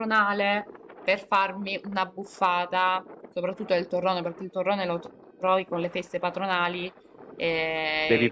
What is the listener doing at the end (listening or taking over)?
listening